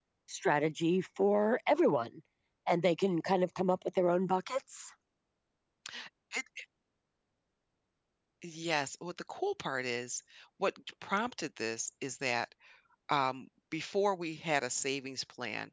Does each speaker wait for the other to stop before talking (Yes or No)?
Yes